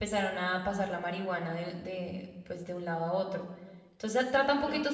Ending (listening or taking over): listening